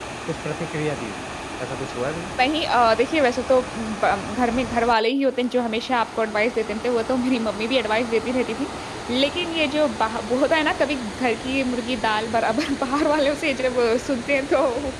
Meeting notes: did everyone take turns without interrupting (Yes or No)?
Yes